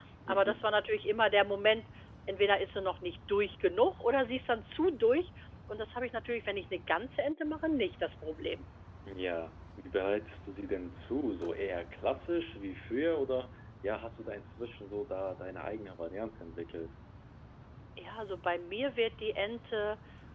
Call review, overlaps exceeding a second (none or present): none